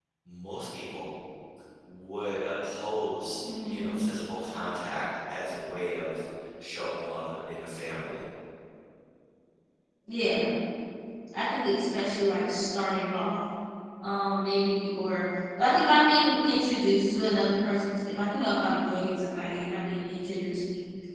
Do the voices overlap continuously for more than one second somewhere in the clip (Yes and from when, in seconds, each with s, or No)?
No